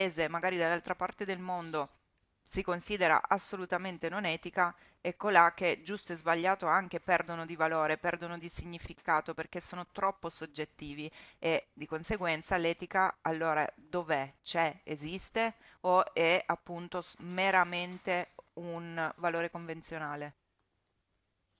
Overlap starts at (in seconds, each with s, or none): none